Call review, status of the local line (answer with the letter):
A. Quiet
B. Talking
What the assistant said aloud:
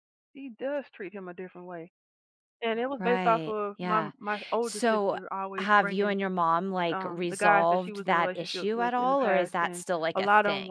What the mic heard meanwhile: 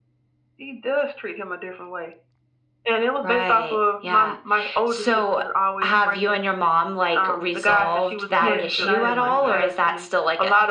B